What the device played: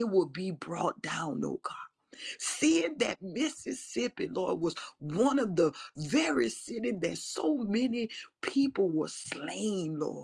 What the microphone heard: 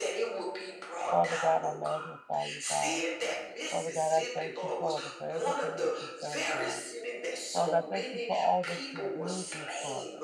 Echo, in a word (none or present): present